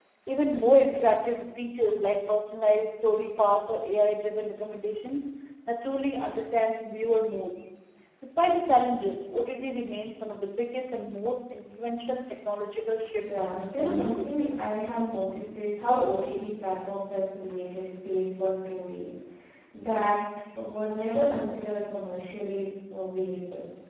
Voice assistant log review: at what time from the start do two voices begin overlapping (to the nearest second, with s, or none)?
13 s